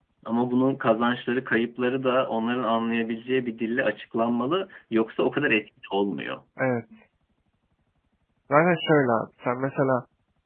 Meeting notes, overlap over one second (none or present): none